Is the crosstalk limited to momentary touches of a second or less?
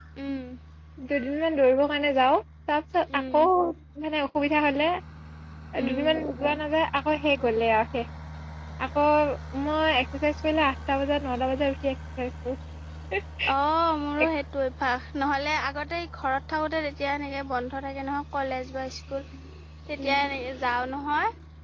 Yes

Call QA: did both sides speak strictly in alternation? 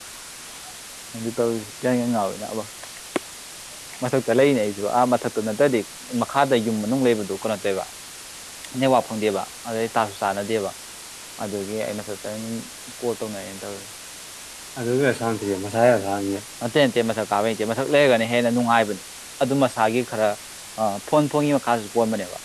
Yes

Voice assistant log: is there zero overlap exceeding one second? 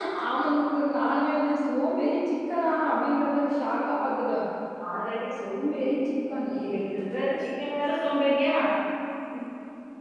Yes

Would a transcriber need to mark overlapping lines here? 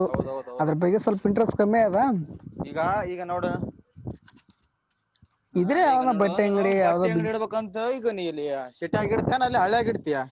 Yes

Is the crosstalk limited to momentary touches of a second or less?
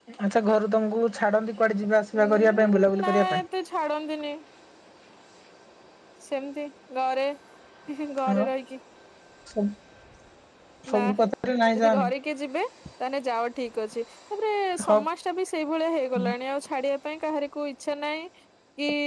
No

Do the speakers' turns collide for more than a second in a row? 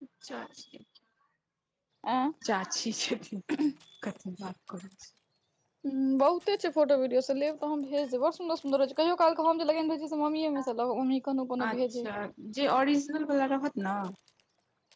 No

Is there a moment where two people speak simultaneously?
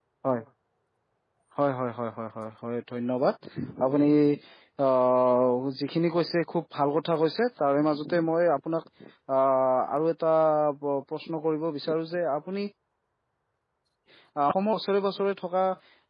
No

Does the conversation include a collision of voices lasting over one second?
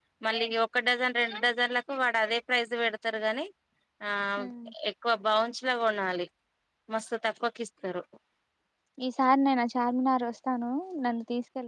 No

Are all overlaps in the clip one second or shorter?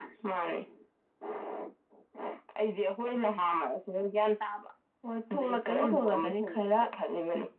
No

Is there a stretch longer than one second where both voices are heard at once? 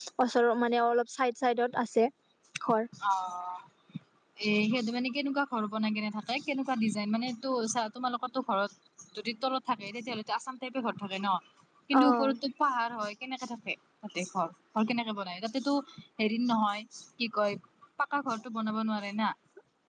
No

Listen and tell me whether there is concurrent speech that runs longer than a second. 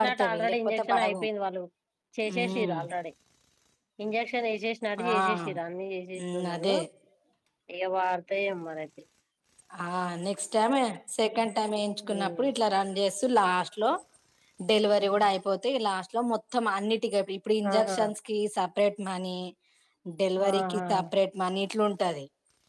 Yes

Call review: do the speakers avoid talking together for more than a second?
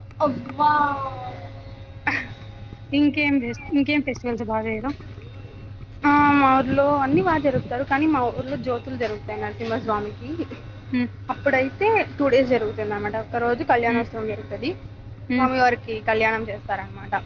Yes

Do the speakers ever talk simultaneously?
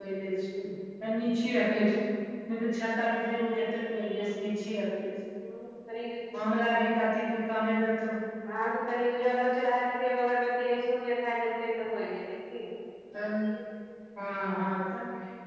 No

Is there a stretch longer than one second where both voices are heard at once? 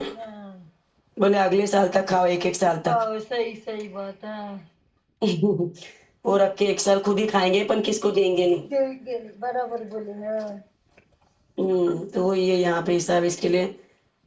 No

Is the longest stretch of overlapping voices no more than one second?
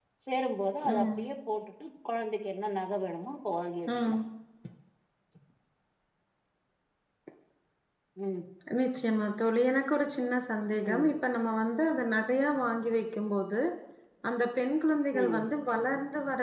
Yes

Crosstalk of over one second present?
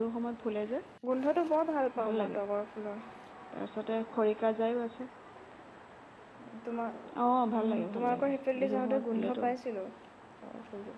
Yes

